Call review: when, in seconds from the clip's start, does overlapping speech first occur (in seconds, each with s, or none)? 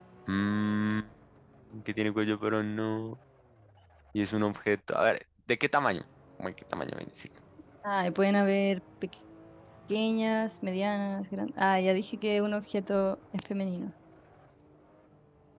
none